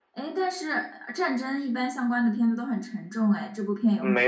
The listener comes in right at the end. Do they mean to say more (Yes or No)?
Yes